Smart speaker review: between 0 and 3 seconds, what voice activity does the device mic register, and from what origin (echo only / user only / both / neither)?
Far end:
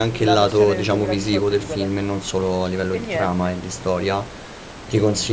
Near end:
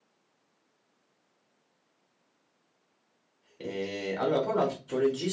neither